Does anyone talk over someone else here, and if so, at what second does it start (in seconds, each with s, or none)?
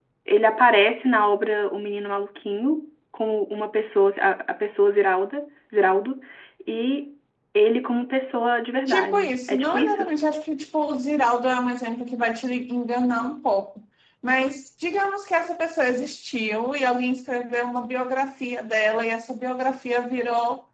8.9 s